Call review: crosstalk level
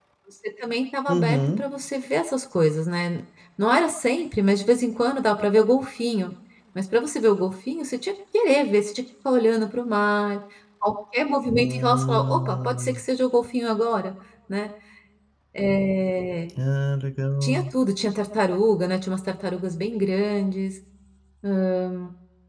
present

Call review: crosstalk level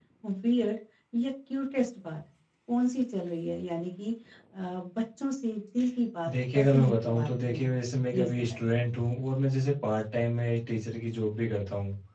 present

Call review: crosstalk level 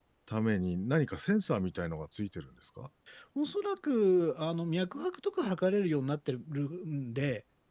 none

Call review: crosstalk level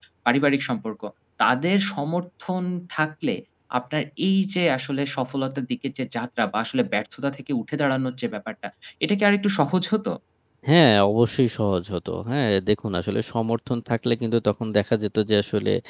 none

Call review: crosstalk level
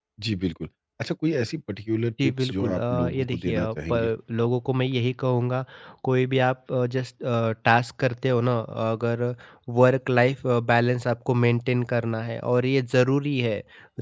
present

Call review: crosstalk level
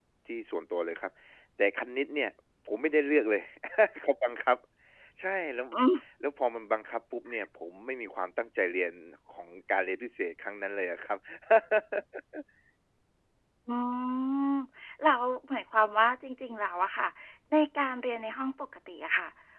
none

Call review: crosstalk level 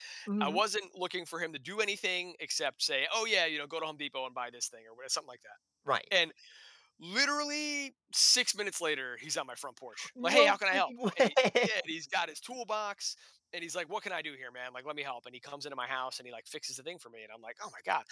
present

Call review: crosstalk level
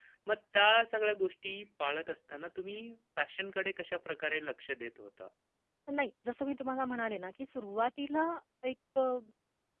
none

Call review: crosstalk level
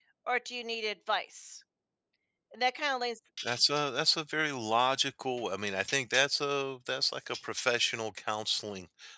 none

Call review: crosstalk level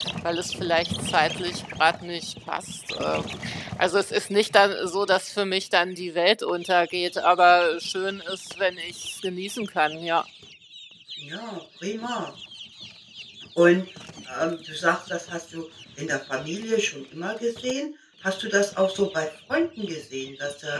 none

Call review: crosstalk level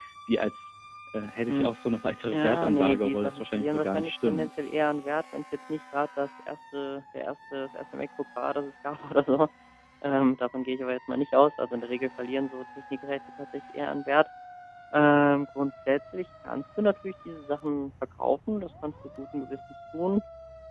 present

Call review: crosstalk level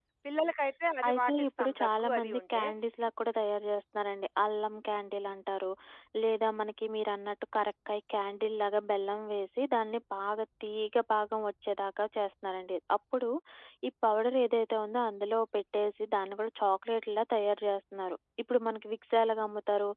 present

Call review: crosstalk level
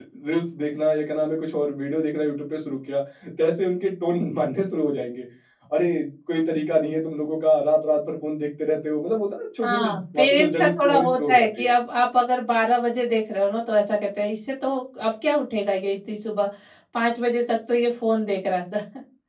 present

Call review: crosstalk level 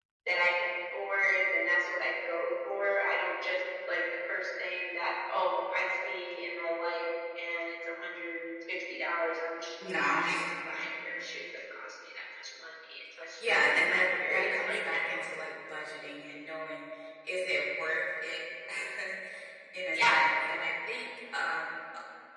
present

